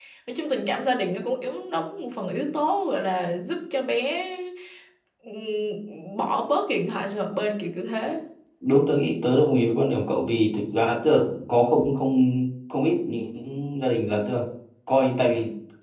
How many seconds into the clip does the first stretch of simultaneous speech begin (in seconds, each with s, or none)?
none